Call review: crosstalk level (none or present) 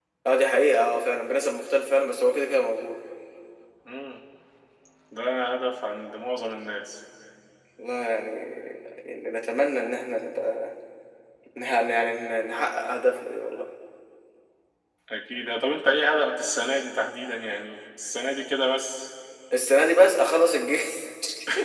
none